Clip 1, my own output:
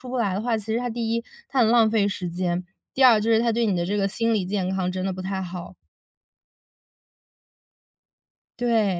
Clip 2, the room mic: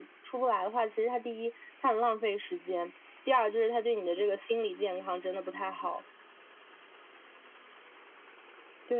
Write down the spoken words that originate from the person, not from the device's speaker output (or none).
none